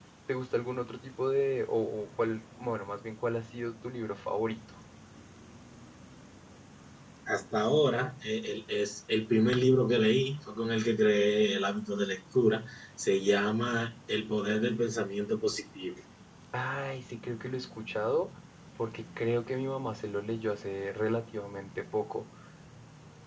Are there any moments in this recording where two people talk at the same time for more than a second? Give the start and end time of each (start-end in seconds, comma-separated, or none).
none